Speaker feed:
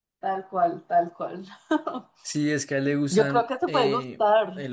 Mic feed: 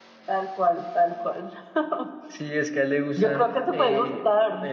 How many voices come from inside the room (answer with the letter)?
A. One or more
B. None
A